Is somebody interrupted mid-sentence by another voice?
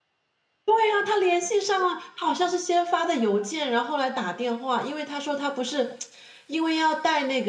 No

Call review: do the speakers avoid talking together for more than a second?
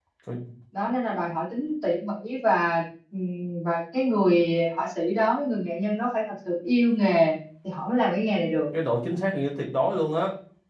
Yes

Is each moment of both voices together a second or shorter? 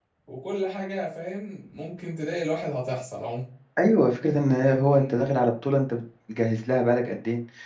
Yes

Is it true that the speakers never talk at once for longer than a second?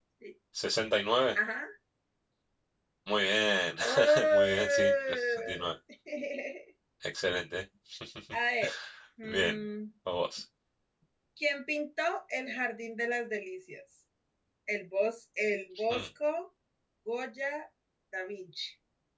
No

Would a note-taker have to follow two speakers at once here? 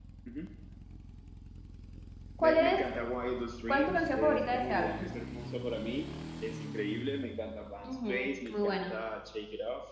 Yes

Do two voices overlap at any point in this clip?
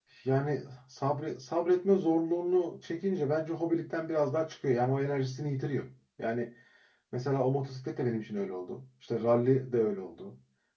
No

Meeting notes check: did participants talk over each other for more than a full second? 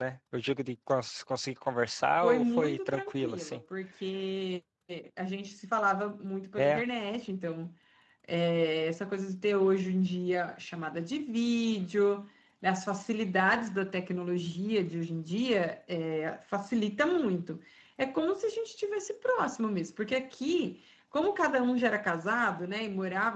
Yes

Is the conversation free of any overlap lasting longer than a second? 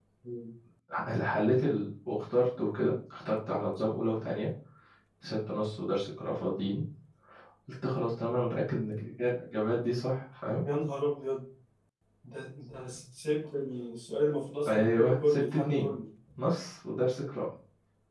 No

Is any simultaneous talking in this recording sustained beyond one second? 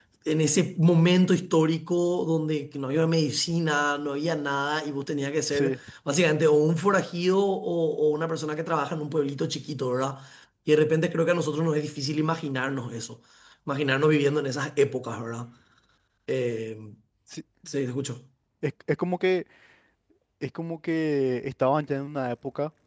No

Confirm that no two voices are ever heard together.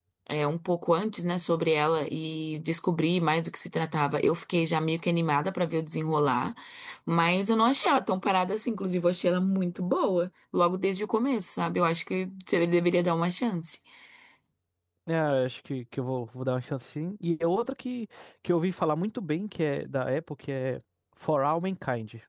Yes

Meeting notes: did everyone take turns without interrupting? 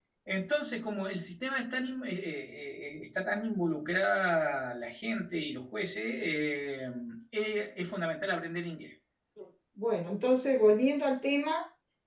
Yes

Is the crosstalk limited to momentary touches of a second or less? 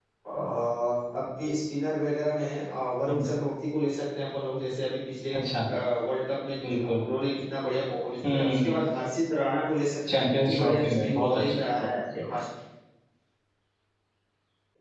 No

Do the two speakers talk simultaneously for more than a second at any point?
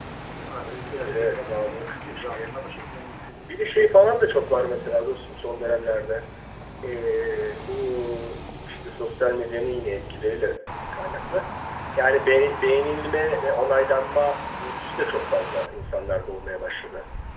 Yes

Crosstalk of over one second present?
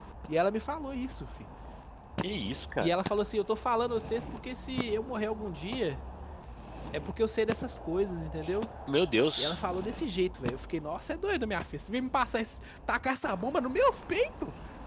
No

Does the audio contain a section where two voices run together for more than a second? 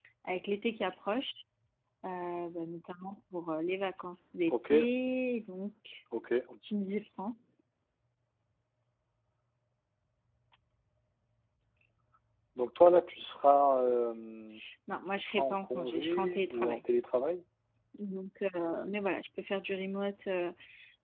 Yes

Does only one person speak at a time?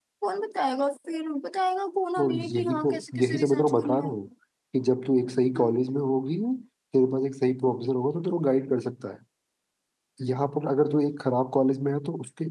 No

